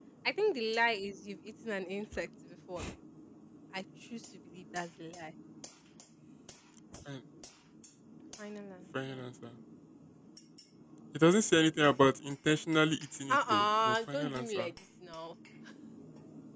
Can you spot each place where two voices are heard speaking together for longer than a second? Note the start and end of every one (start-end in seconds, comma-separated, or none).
13.3-14.7